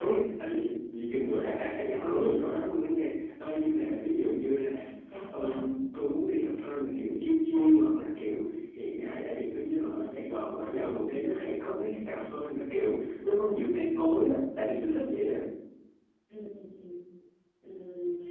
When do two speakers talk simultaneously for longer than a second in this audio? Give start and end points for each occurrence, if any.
none

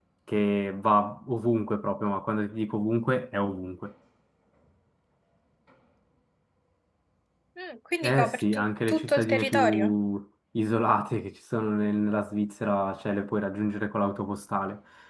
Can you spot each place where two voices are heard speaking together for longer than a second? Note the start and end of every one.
8.0-9.9

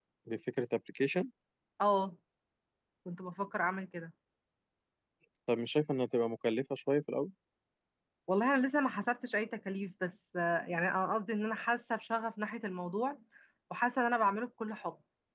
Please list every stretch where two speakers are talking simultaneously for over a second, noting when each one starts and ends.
none

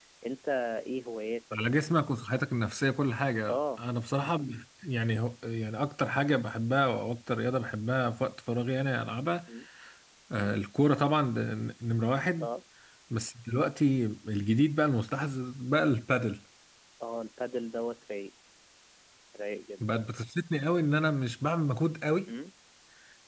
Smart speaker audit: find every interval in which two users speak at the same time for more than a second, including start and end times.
none

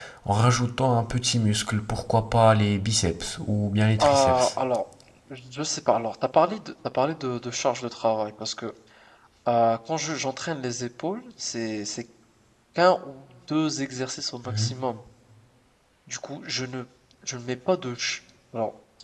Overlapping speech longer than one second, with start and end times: none

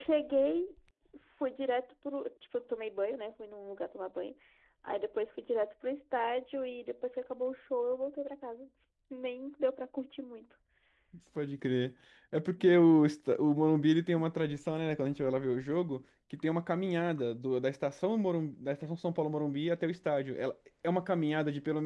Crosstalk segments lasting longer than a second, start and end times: none

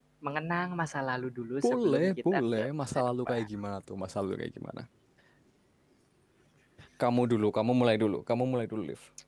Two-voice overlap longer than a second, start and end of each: 1.6-3.5

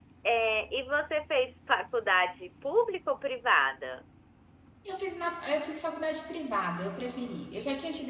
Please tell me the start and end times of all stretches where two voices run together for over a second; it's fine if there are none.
none

